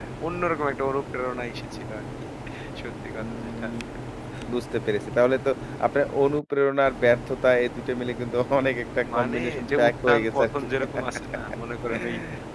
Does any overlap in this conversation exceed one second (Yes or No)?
Yes